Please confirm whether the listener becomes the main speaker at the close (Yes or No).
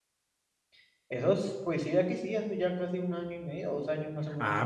Yes